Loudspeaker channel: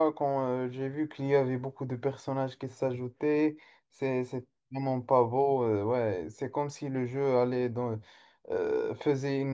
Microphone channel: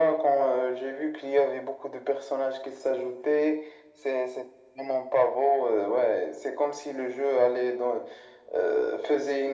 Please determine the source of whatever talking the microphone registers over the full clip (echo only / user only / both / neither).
echo only